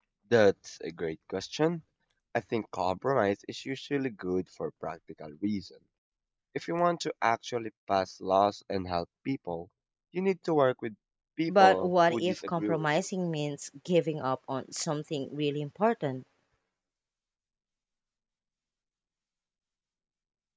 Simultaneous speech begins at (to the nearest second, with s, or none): 11 s